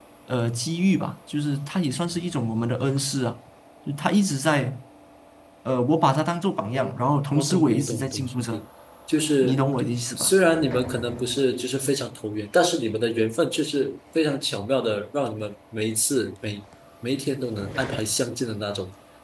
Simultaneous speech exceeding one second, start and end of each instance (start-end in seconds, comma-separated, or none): 7.4-8.6